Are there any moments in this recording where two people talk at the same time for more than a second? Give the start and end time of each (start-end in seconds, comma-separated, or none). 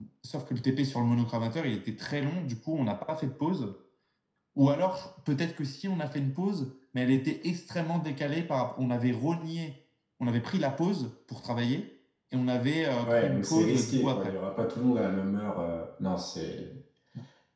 13.0-14.3